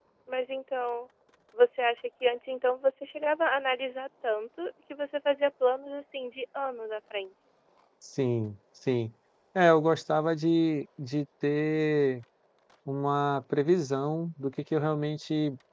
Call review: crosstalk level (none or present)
none